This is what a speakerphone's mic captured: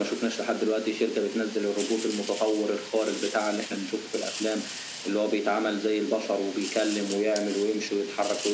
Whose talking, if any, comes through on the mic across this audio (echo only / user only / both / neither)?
echo only